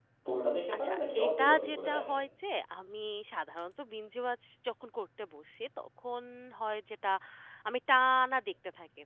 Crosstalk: present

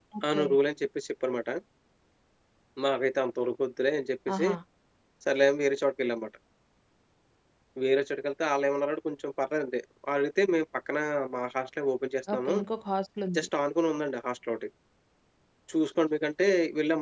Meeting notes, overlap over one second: none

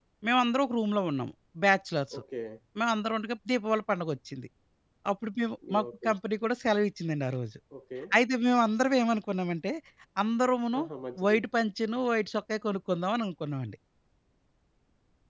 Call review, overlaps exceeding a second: none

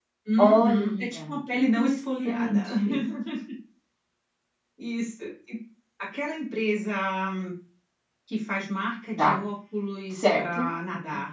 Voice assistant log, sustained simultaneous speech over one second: present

